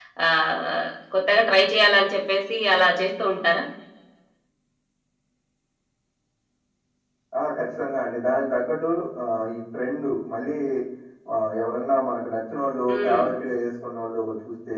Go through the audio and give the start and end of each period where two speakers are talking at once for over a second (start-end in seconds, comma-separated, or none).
none